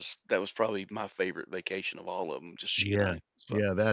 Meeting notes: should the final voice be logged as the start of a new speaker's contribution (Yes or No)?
Yes